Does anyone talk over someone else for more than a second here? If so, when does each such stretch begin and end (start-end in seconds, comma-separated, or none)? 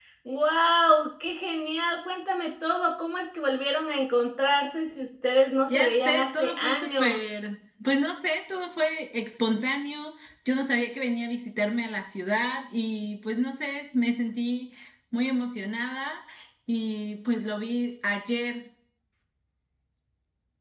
5.7-7.2